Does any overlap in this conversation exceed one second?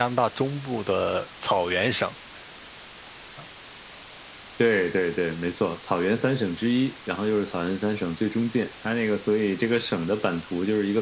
No

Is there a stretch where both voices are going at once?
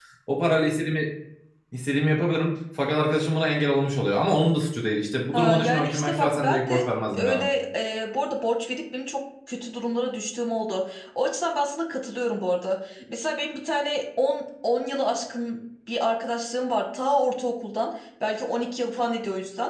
Yes, from 5.3 s

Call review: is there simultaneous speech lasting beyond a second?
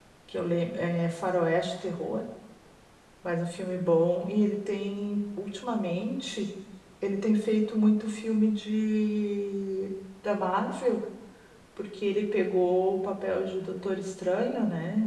No

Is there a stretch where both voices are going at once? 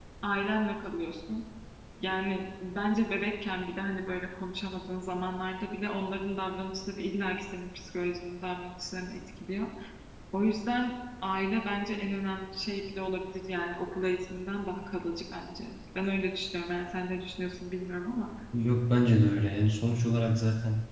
No

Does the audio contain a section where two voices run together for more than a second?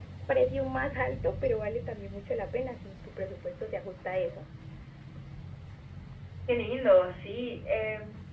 No

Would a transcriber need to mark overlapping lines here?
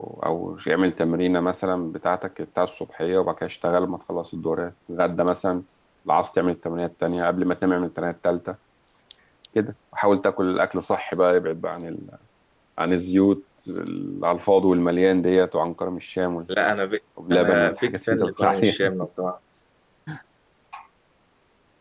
Yes, from 17.3 s

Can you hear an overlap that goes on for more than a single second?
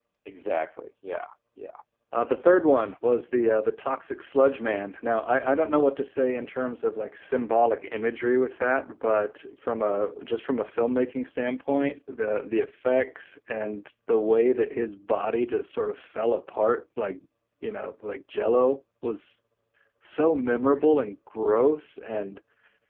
No

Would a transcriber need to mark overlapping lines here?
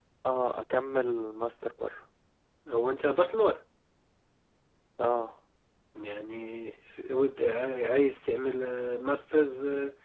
No

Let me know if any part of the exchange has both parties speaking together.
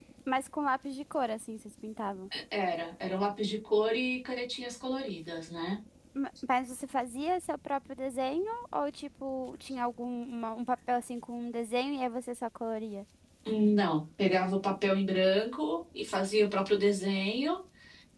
No

